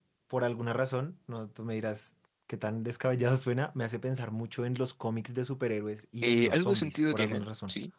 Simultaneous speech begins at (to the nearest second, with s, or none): 6 s